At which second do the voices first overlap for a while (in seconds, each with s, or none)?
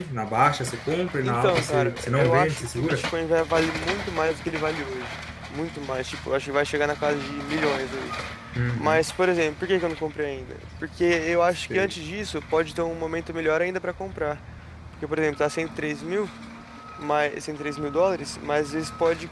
1.2 s